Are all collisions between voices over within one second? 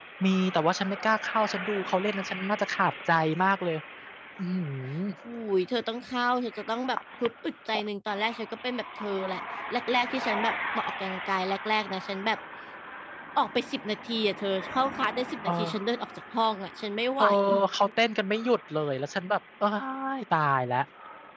Yes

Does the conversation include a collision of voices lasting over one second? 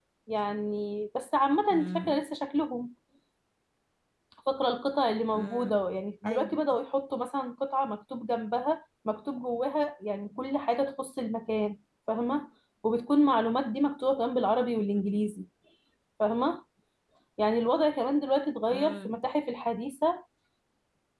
No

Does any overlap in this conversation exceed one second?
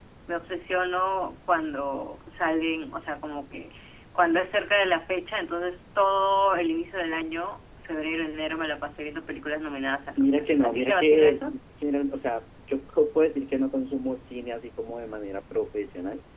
Yes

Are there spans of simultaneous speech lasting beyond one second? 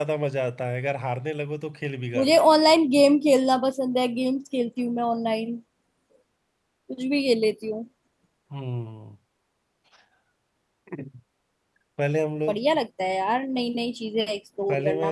No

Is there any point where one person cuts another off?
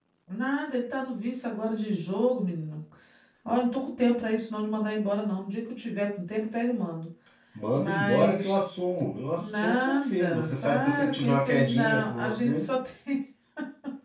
Yes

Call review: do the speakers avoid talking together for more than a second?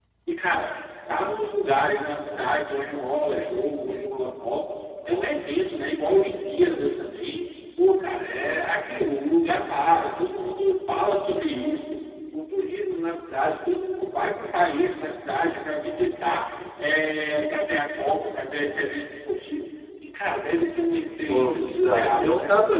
No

